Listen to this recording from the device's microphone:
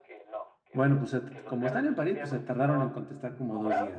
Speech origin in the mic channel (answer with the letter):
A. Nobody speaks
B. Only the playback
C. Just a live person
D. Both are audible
D